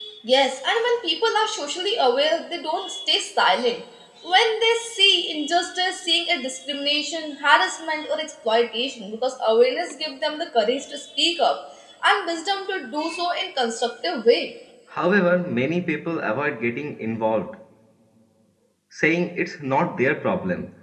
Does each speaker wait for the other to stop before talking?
Yes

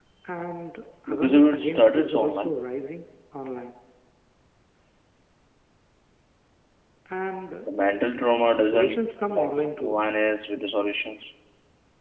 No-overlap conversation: No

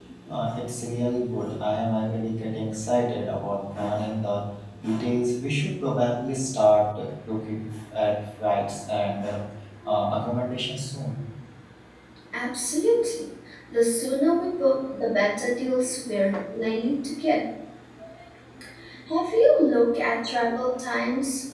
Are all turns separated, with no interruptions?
Yes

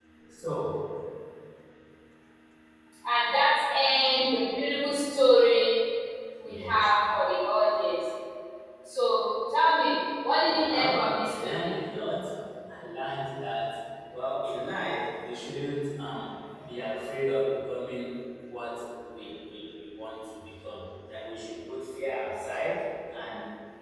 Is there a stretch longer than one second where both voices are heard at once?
Yes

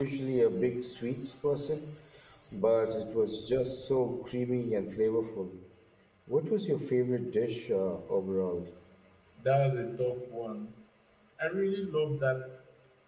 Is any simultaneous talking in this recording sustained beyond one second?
No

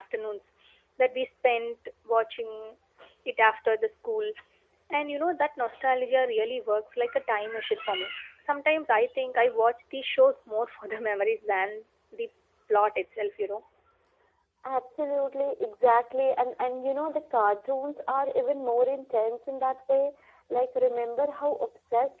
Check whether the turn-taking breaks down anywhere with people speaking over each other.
No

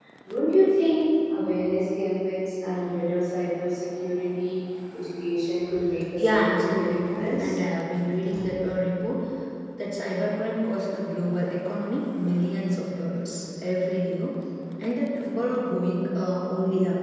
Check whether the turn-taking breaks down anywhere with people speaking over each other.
Yes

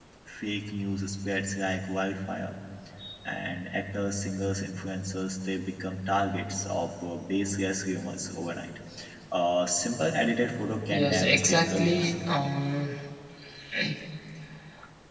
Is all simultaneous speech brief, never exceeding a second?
No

